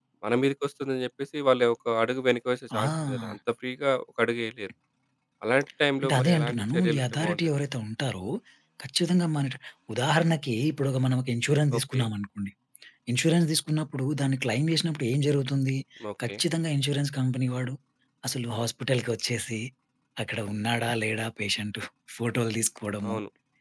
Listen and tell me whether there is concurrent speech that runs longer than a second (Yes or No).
Yes